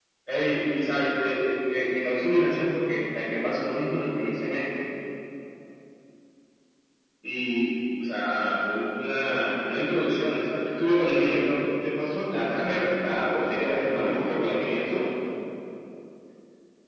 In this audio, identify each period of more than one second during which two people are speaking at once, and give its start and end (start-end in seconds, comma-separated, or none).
12.4-14.8